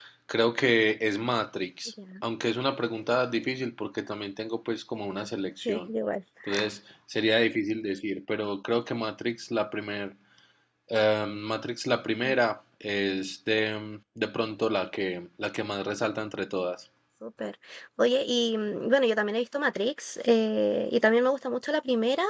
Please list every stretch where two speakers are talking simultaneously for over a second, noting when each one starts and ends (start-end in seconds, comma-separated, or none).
none